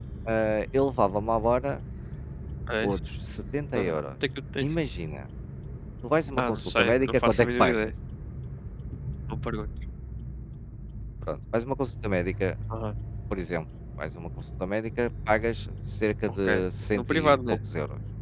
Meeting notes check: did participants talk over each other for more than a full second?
Yes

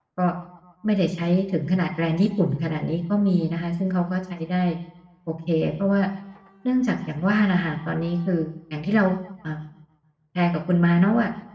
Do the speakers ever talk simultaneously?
No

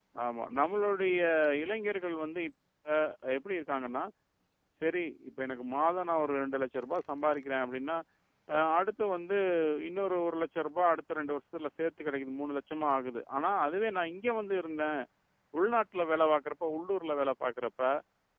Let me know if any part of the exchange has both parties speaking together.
No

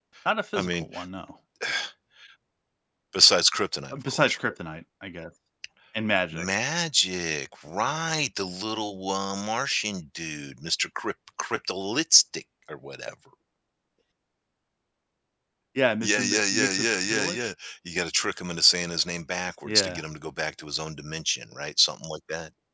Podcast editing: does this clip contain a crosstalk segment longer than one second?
Yes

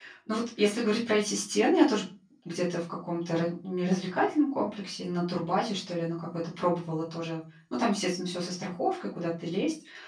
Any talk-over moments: No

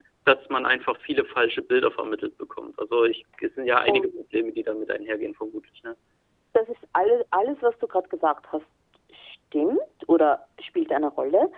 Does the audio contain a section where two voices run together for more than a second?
No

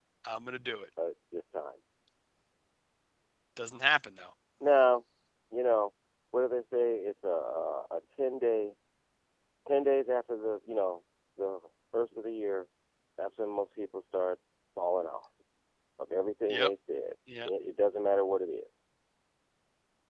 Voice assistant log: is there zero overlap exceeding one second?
Yes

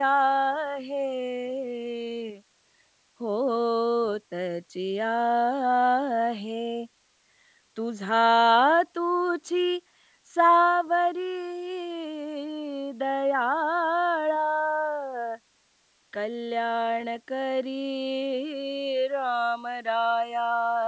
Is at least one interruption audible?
No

